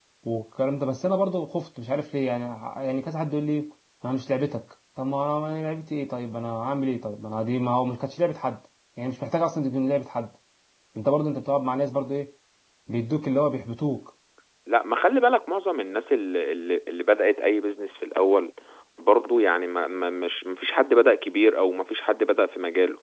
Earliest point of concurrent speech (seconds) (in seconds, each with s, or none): none